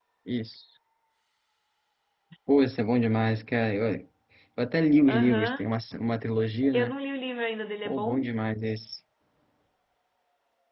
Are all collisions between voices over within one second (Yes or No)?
Yes